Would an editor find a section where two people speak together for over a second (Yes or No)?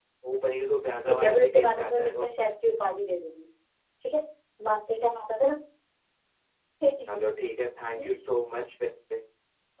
Yes